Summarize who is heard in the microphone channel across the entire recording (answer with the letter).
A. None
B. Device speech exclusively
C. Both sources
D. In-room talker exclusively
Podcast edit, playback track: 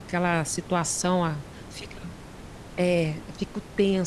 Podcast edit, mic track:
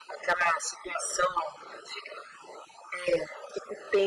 B